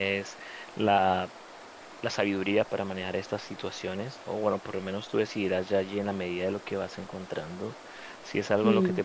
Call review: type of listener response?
listening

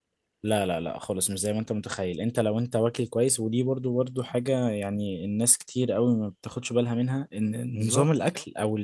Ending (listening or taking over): listening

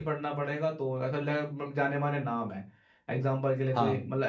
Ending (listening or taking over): listening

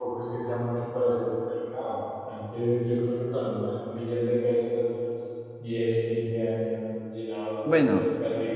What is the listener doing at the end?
listening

